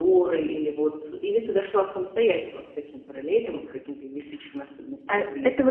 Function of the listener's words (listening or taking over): taking over